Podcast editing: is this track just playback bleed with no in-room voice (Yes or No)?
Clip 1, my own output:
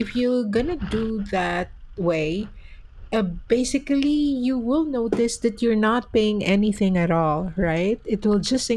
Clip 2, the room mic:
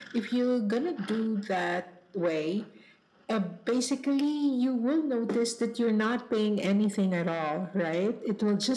Yes